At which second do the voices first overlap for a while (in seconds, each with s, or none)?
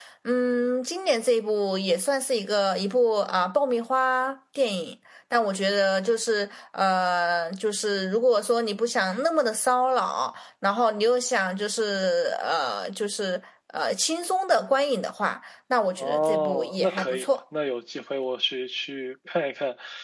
16.0 s